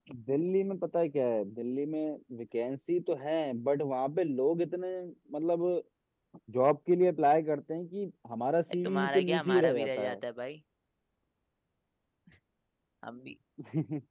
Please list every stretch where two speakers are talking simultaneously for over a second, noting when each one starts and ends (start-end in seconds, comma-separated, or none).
8.8-10.2